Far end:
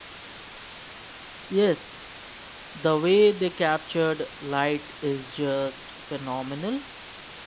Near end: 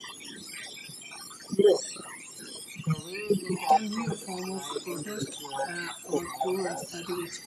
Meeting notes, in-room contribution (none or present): present